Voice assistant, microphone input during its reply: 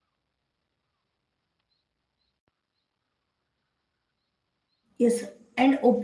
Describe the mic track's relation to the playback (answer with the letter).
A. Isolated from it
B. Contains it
A